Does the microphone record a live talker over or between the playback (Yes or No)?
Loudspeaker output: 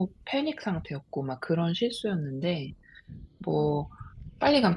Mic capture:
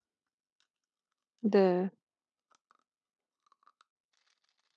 Yes